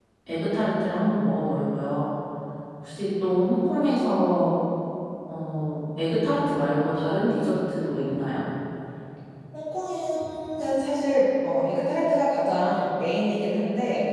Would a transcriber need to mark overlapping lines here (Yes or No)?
No